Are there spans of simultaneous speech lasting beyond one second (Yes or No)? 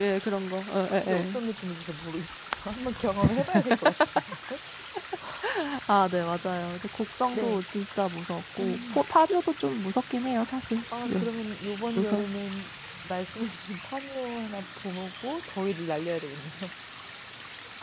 No